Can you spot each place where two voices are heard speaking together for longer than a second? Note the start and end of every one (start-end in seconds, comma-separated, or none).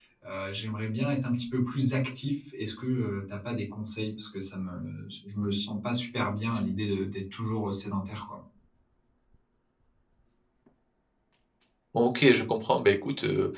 none